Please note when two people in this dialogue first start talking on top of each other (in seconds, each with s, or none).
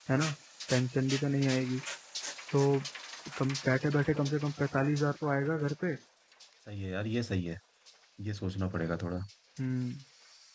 none